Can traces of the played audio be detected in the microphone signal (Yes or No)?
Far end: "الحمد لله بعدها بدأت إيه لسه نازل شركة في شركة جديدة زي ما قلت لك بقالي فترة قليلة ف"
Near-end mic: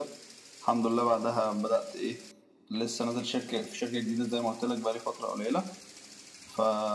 Yes